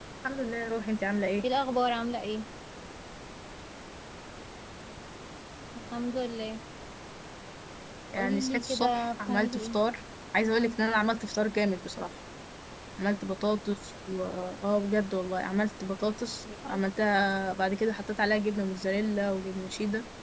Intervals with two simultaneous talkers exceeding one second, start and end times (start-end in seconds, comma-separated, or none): 8.2-9.8